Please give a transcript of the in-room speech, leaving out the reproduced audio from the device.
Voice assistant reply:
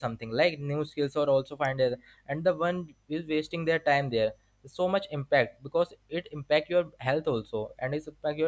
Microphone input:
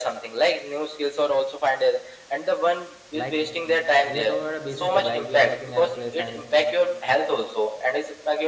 like w- we are talking about a basic thing. Like we are working at a place and

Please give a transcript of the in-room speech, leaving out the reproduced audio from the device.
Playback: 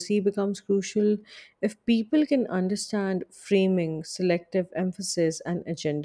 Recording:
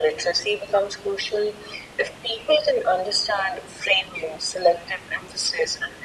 none

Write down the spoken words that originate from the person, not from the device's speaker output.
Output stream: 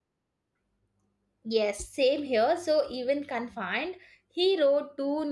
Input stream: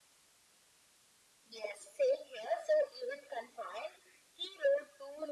none

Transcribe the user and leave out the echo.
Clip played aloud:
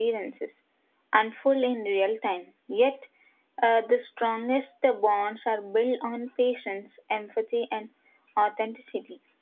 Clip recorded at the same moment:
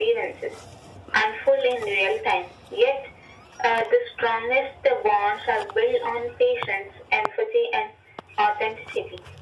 none

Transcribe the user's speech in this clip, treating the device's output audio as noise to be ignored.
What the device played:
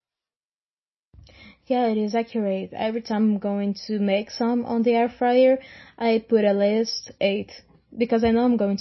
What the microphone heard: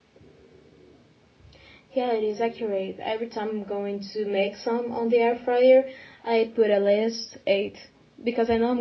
none

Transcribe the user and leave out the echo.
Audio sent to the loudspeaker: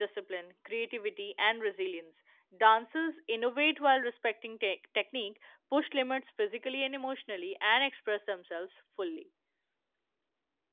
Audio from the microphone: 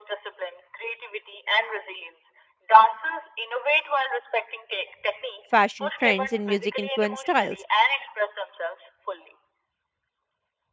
fashion trends, and music influenced styles.

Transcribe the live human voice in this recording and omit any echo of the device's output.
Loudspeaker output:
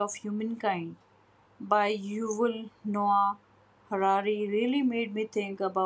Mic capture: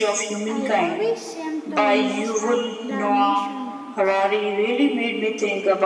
I always seem to mess up the measurements.

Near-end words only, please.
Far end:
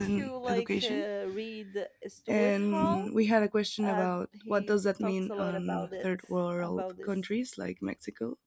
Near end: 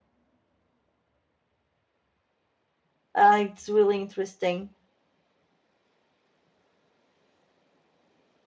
uh, it's really interesting

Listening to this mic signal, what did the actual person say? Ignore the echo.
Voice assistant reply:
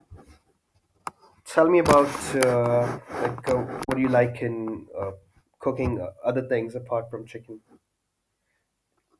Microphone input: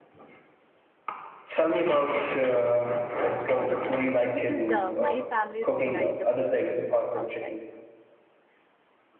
I don't order from outside because uh, my family don't like the food from outside.

